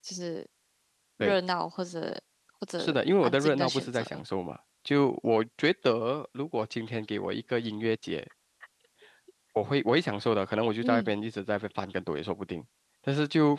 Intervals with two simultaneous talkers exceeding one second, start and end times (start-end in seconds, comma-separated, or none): 2.8-4.2